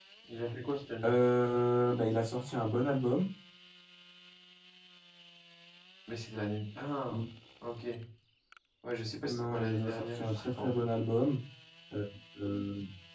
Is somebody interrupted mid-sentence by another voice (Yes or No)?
Yes